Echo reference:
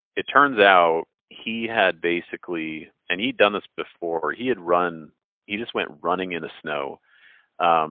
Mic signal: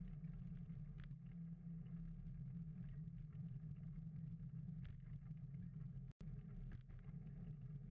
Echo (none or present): none